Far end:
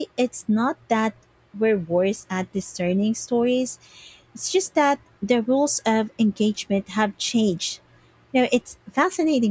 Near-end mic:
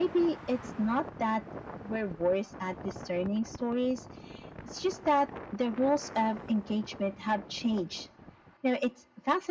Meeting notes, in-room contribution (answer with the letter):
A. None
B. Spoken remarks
A